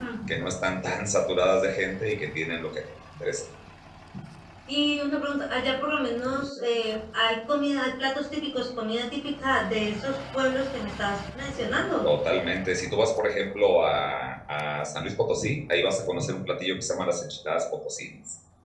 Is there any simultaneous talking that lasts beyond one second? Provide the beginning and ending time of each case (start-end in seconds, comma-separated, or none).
none